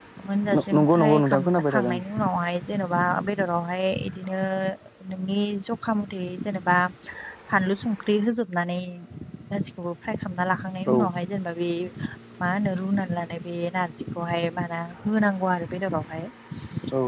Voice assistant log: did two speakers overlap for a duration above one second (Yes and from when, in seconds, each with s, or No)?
Yes, from 0.5 s